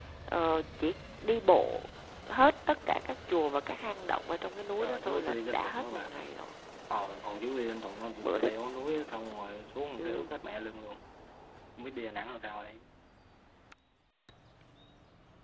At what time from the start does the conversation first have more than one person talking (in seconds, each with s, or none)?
4.8 s